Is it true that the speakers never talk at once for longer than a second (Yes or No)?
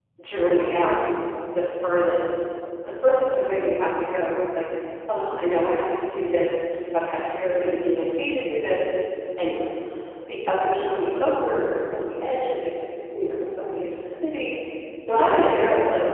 Yes